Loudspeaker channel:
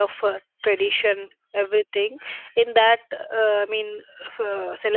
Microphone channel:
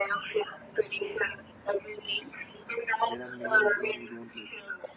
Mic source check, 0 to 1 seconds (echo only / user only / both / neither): echo only